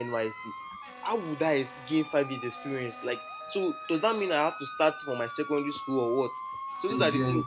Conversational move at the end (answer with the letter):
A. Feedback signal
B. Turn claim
A